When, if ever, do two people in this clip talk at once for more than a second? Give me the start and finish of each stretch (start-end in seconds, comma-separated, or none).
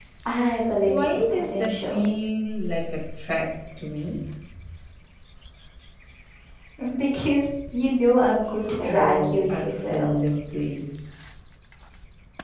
0.8-2.0, 8.8-10.2